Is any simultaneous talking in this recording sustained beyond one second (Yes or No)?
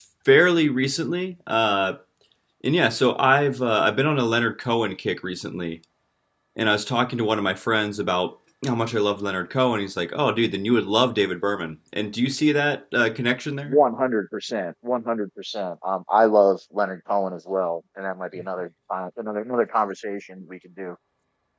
No